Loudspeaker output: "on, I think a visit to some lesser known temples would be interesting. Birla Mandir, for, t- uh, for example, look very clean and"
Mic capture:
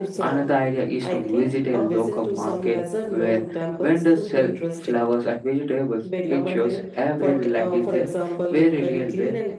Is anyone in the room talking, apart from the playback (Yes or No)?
Yes